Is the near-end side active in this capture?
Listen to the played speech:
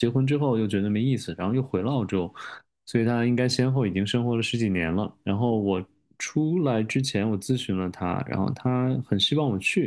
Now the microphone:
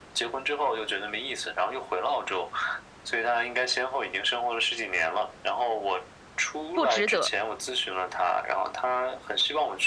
Yes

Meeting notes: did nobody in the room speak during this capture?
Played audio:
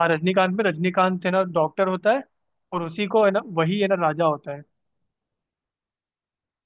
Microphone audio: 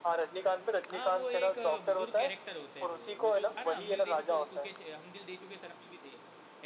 No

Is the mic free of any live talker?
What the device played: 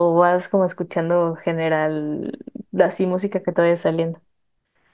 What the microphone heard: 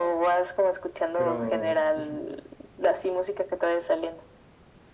No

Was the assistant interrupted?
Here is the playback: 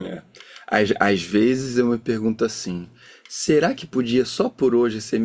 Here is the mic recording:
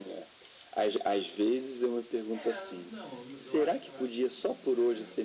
Yes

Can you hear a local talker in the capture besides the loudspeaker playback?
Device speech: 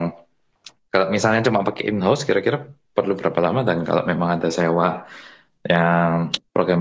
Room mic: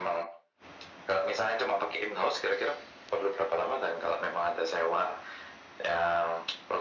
No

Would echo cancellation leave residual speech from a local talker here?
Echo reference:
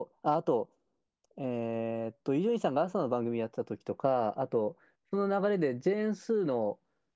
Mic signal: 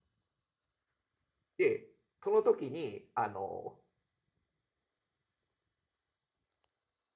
Yes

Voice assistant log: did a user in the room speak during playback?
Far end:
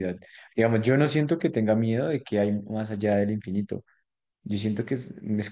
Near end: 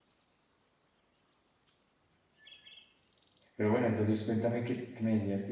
Yes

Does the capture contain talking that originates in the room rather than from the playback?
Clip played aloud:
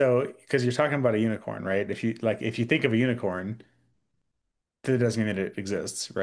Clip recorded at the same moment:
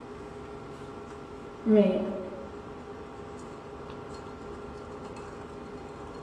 Yes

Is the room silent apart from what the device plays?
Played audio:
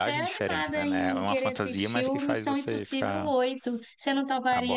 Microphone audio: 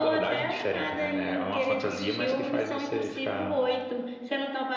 Yes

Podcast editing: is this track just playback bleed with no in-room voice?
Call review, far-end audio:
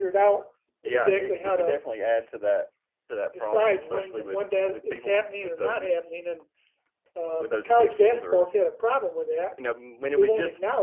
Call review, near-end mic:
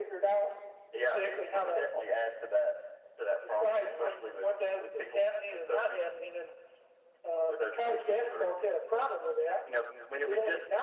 Yes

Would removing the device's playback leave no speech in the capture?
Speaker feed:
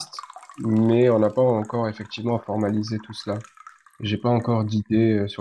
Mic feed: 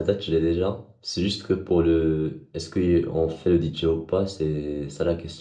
No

